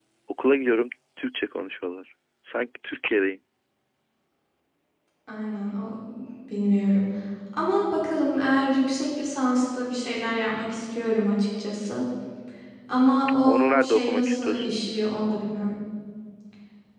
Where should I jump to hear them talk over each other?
13.4 s

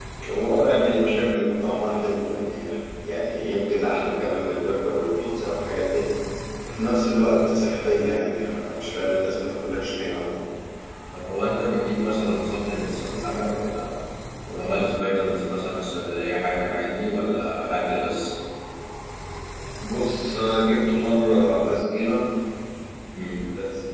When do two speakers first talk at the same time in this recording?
none

